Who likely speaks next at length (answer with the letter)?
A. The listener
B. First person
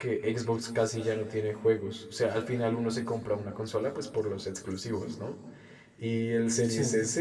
B